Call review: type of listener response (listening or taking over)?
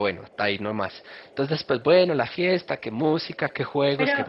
taking over